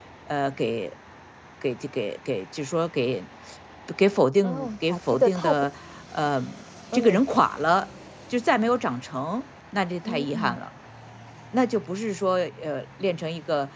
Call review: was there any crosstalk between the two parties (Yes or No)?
Yes